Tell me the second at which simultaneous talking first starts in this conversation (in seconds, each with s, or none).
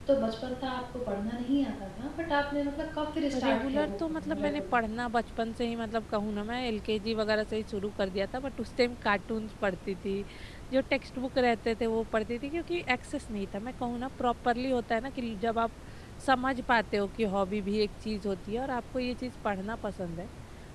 3.3 s